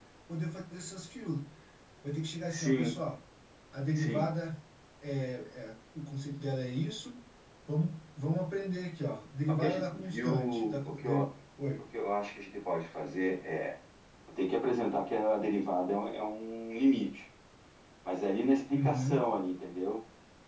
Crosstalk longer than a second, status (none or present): present